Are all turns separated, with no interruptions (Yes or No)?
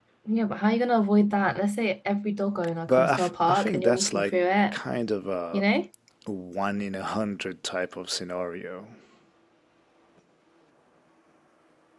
No